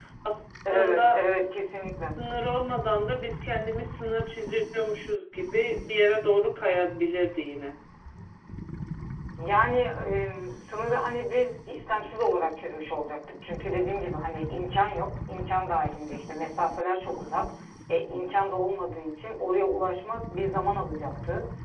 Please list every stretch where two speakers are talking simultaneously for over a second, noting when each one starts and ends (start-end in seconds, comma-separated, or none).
none